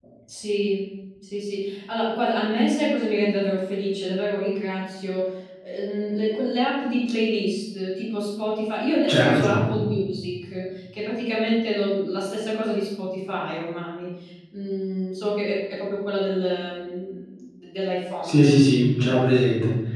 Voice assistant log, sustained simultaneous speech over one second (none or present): none